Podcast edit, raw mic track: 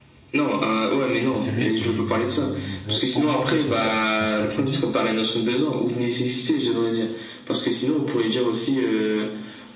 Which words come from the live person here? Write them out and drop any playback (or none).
C'est celui qui veut augmenter son, ca- son statut de vie,